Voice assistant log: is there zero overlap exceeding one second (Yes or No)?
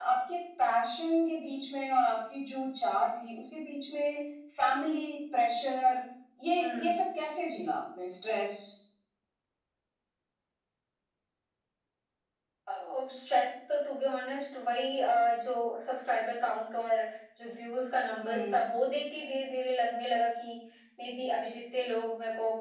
Yes